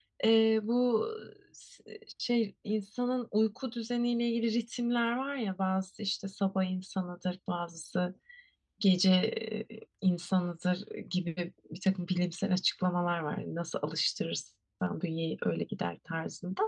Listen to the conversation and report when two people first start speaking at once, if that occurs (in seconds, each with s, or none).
none